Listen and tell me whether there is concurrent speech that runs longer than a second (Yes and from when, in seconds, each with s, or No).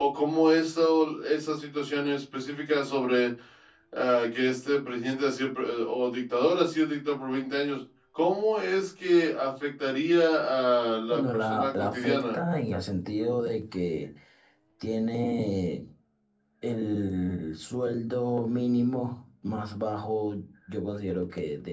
Yes, from 11.1 s